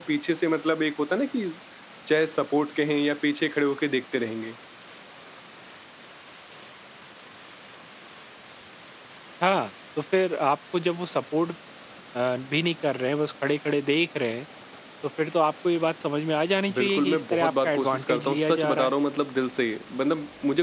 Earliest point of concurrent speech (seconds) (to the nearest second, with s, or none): 17 s